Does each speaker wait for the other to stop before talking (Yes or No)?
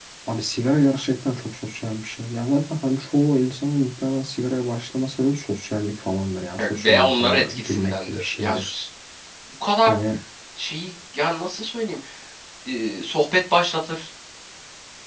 No